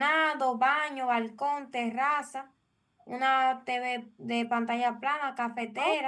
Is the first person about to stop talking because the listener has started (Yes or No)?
Yes